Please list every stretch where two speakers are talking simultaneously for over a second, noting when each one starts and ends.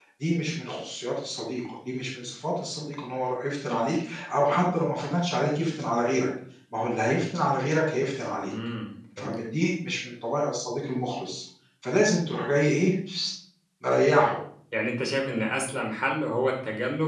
none

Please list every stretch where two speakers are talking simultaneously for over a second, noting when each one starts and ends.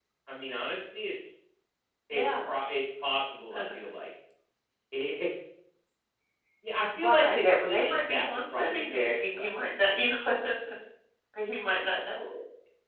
7.0-9.5

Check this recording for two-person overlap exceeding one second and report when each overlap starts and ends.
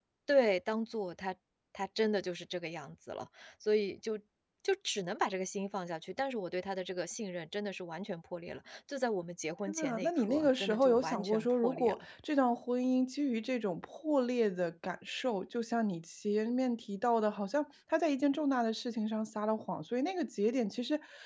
9.7-12.0

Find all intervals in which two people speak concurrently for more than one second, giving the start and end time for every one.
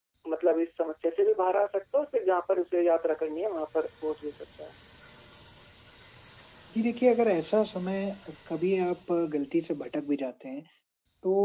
none

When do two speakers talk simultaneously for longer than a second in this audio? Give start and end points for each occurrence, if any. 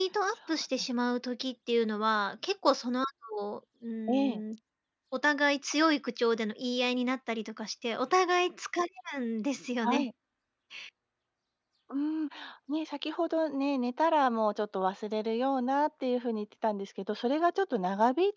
none

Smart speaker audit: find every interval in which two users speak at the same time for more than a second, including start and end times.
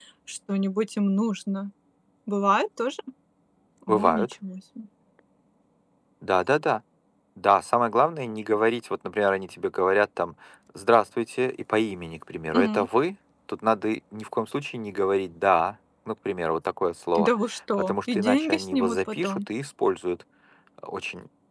17.8-19.4

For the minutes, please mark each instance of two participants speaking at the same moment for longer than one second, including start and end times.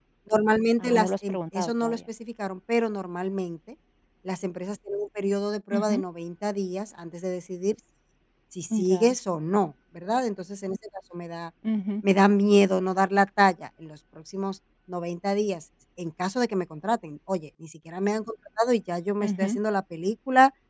0.8-2.0

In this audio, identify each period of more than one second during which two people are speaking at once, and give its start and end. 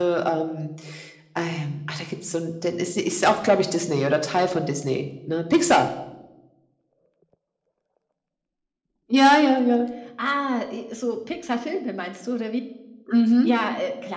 none

